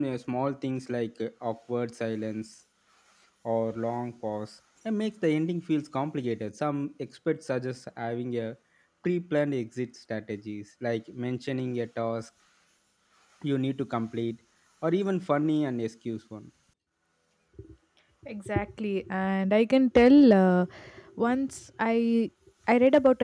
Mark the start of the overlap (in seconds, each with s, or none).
none